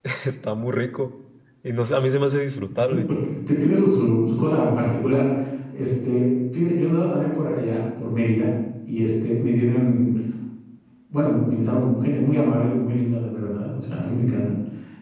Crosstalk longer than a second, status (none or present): none